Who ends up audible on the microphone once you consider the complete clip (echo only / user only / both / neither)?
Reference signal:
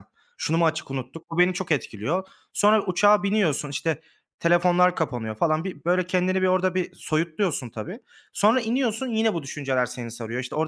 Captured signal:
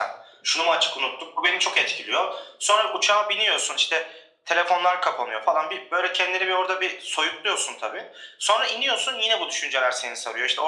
echo only